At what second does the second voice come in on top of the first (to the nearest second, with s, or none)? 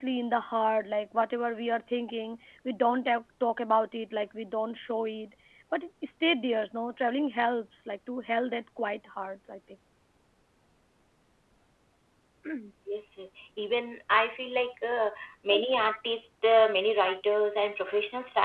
none